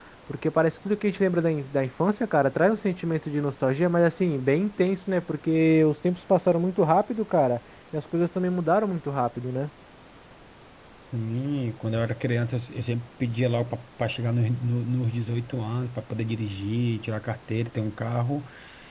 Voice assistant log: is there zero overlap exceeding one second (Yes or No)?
Yes